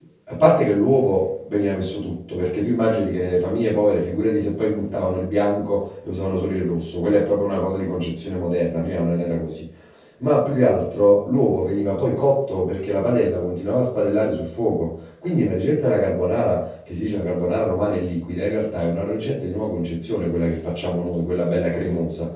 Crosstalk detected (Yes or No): No